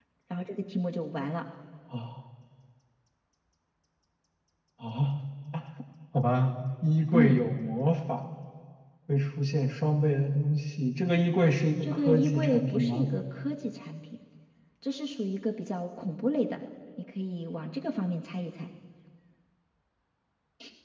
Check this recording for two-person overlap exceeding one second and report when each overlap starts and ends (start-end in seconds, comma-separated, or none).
11.8-13.1